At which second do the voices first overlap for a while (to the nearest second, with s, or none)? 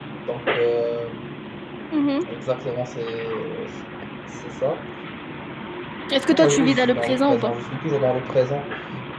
6 s